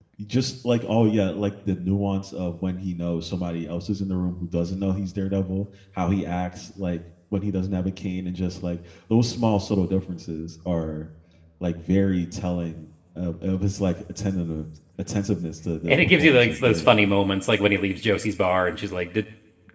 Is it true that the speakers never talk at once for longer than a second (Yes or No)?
No